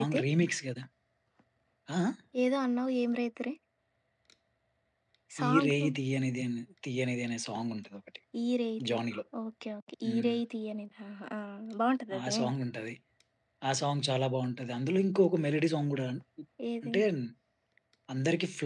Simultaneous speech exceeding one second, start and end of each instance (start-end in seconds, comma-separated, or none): none